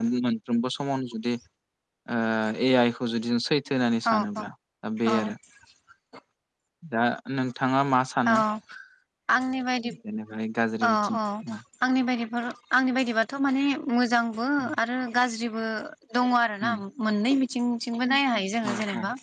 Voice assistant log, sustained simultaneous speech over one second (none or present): none